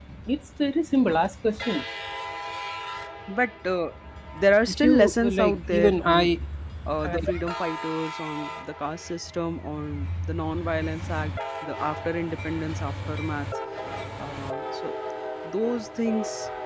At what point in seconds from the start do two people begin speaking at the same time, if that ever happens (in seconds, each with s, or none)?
4.6 s